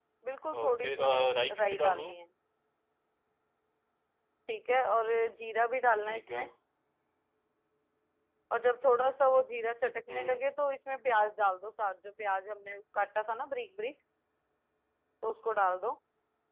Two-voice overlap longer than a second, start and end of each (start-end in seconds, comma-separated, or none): 0.6-2.1